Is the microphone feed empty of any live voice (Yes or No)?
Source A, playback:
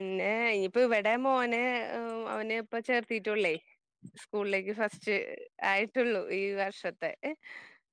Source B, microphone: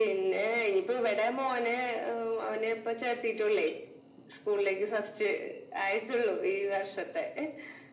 Yes